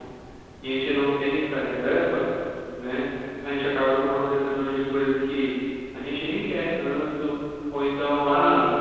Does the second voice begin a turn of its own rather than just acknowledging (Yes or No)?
No